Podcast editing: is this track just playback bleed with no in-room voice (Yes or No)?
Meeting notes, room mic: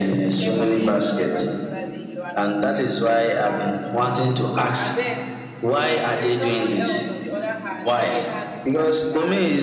No